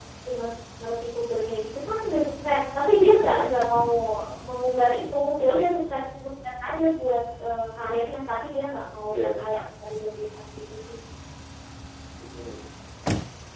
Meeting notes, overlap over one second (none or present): none